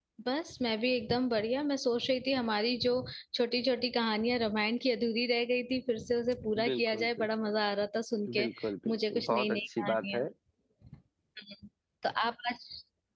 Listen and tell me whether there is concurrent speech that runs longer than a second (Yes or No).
Yes